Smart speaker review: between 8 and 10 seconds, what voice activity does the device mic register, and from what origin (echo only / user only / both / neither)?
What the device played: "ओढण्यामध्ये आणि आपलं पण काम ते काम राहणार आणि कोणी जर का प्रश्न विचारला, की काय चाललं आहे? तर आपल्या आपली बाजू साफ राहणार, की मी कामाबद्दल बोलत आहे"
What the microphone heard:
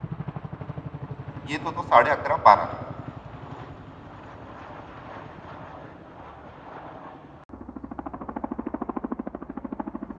neither